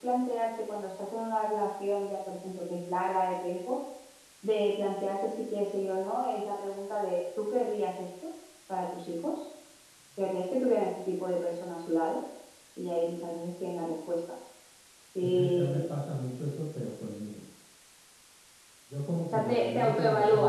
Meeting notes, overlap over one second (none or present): present